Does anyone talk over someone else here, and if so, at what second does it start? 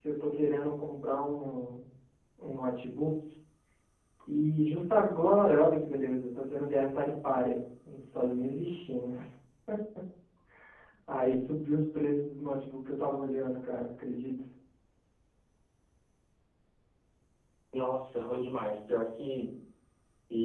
none

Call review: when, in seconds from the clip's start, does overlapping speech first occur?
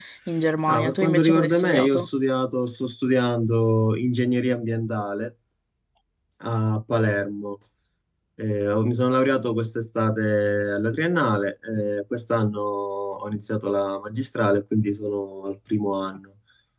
0.7 s

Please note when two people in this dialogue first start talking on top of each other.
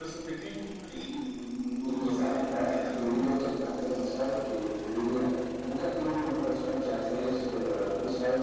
1.8 s

